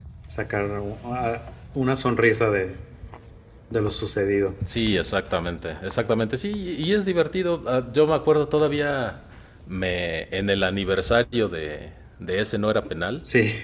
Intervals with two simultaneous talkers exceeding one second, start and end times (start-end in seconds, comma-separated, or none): none